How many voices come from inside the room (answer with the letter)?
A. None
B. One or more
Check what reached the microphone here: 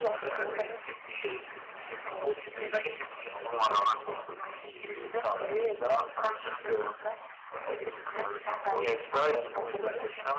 A